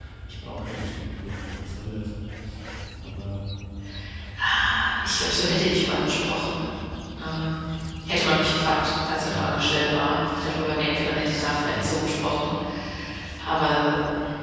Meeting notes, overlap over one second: none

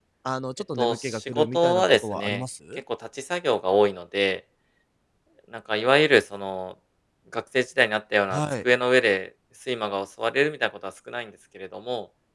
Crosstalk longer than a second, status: present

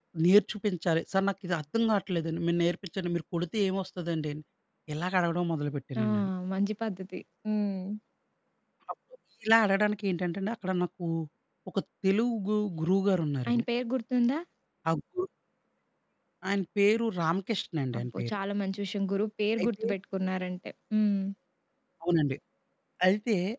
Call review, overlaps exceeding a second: none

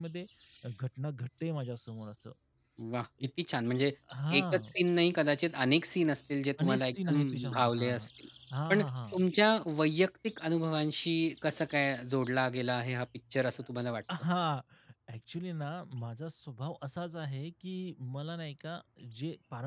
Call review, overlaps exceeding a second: present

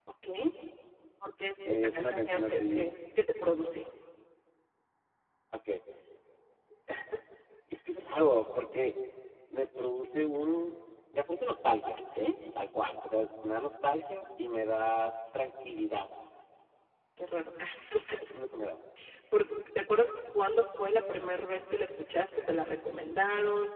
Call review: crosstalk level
present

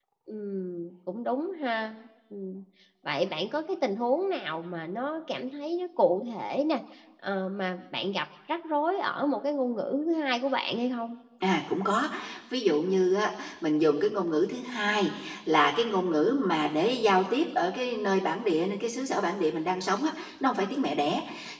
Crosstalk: none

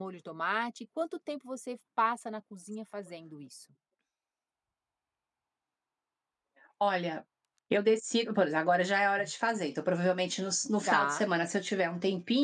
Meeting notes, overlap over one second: none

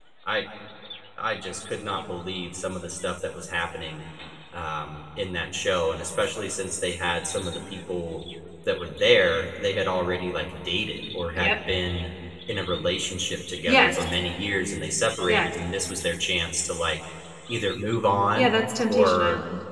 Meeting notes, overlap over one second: none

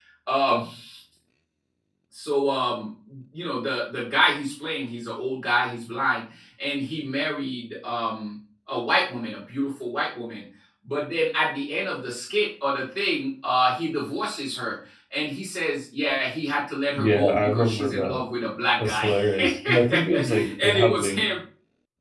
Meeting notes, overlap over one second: present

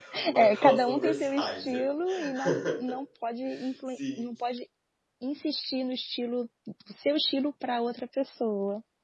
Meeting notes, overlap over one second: present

